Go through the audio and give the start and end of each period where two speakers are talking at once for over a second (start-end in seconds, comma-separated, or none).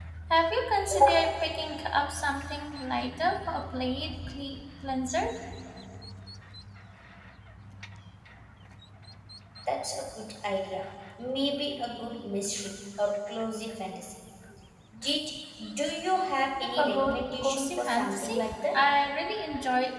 16.8-18.3